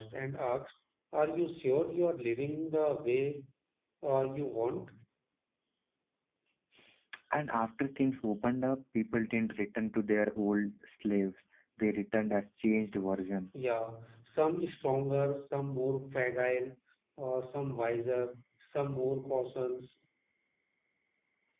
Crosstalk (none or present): none